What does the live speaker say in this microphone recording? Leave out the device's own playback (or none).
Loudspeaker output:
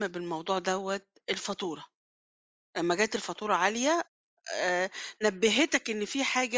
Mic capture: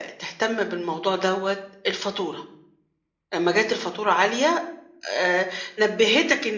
none